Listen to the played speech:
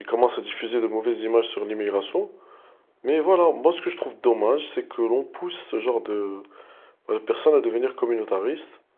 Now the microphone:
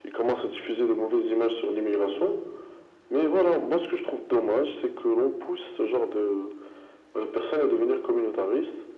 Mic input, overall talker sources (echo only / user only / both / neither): echo only